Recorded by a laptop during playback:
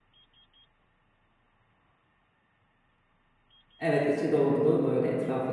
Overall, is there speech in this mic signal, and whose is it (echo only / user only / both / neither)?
user only